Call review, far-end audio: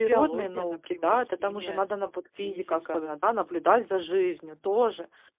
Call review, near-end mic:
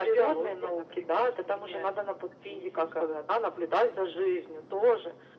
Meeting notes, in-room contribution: none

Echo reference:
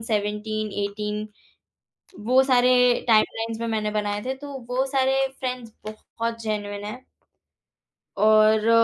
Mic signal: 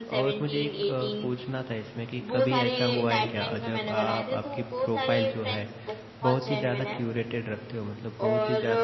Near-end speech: present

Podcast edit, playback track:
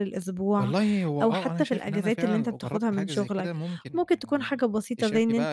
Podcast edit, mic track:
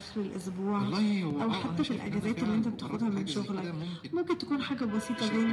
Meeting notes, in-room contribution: none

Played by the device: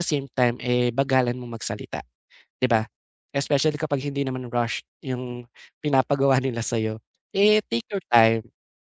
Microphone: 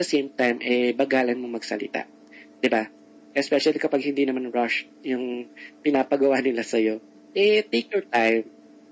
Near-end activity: none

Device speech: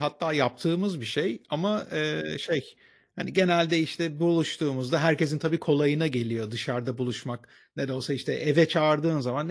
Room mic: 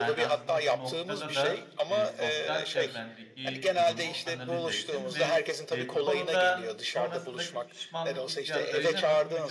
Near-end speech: present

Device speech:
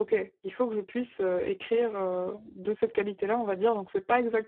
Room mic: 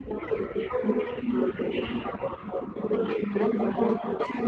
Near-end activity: none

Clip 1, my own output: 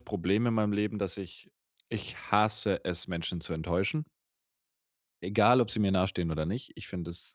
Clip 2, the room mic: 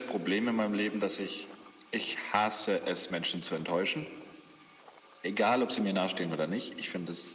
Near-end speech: none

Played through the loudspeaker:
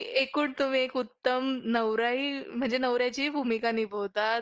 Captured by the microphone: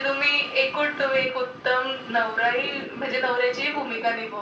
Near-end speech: none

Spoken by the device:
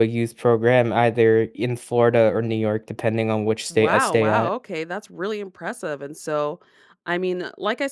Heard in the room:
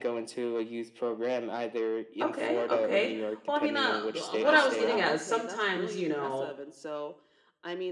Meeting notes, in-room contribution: present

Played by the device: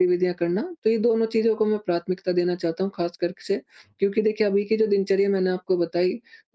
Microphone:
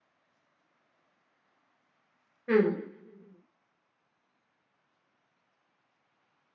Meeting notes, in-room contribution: present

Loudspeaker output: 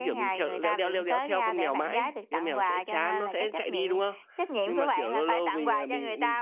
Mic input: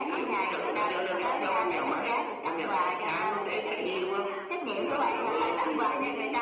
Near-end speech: present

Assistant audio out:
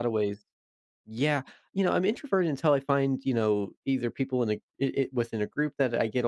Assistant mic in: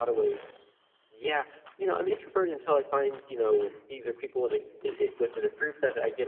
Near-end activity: present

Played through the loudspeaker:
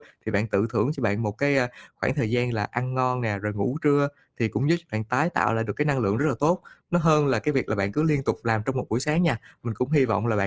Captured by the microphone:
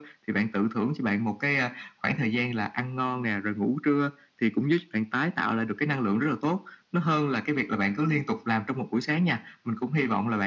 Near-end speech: none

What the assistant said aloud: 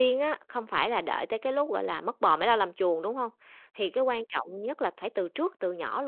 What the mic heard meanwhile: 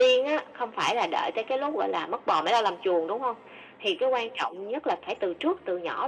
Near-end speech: none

